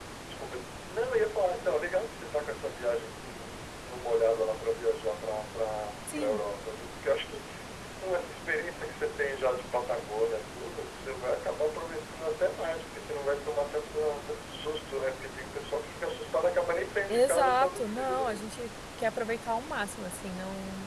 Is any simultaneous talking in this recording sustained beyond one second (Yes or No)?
Yes